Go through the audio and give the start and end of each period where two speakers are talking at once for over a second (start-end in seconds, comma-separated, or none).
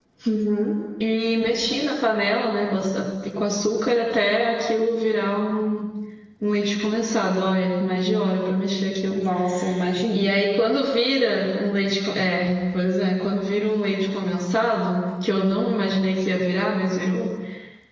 none